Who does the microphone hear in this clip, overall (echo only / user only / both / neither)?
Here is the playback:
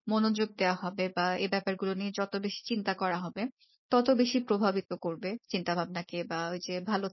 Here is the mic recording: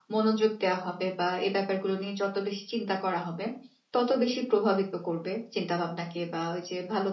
echo only